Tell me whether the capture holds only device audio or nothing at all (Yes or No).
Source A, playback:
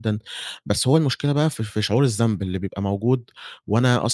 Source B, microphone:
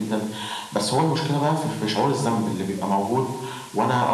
Yes